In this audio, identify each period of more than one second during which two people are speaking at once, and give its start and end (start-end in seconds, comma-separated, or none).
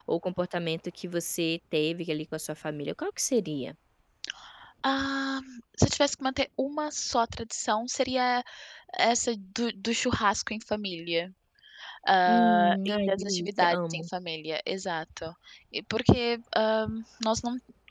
12.3-14.1